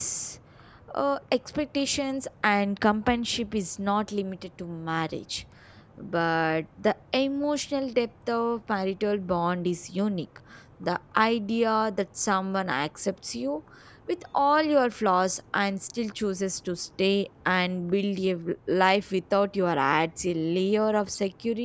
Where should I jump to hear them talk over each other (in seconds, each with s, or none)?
none